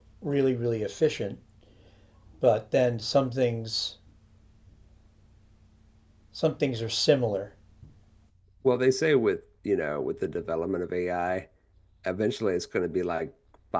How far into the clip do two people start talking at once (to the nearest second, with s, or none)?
none